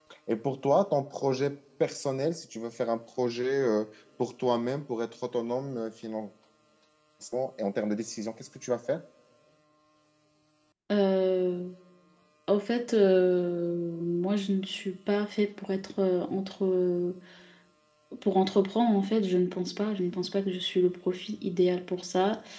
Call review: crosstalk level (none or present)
none